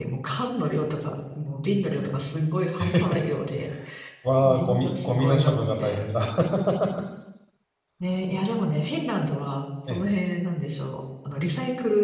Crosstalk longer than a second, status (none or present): present